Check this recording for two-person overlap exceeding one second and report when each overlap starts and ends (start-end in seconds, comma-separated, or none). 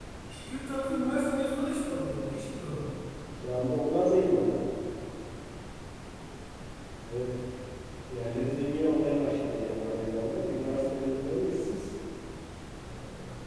none